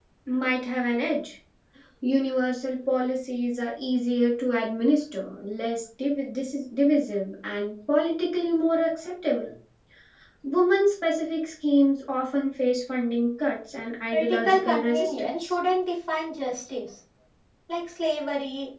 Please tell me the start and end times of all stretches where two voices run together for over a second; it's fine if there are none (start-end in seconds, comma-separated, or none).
14.1-15.5